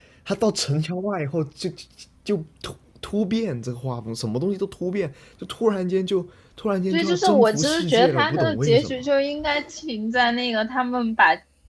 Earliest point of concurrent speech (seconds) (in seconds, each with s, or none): 6.9 s